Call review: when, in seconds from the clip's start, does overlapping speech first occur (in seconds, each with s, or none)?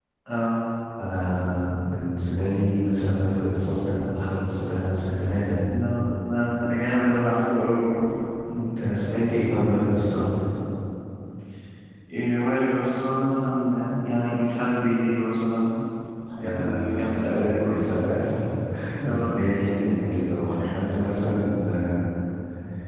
16.4 s